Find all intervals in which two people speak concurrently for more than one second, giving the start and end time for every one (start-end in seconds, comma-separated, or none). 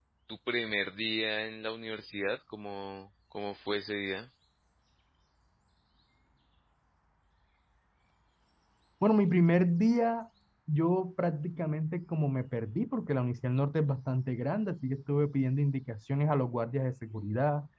none